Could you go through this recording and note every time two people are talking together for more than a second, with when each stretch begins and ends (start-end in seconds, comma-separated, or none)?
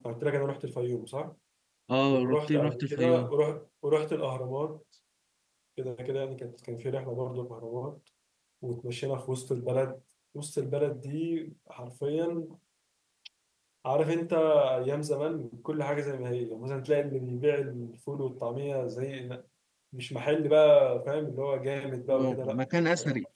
2.1-3.3